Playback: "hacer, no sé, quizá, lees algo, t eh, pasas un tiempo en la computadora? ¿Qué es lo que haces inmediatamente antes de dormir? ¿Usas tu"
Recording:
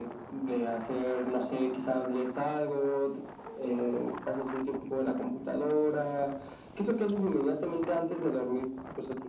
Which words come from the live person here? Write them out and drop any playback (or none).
none